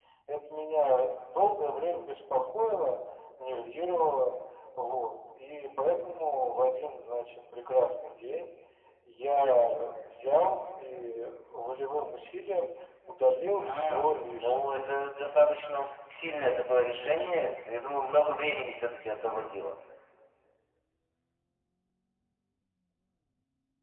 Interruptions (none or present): present